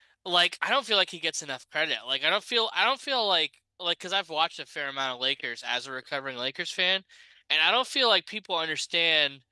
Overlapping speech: No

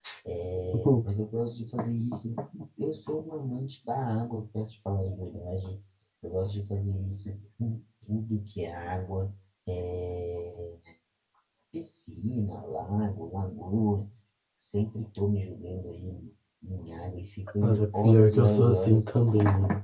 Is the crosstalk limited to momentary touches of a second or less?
No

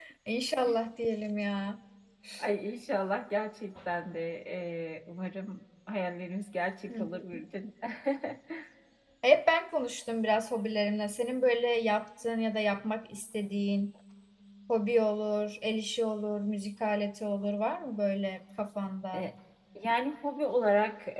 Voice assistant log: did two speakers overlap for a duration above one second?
No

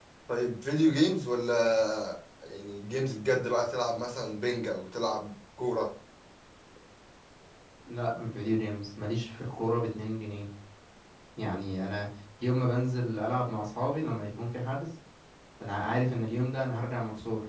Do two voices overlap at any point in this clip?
No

